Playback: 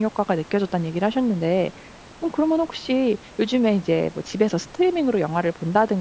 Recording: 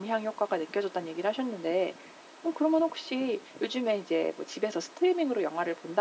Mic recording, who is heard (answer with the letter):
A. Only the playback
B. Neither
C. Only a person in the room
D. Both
A